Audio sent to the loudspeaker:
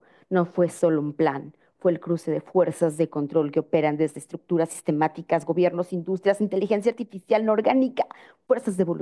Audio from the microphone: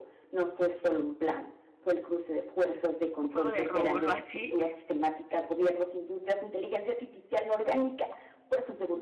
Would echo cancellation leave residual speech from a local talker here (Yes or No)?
Yes